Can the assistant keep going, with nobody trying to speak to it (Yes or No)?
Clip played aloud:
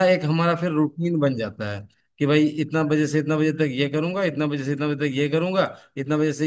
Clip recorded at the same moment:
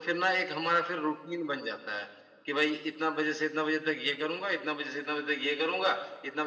Yes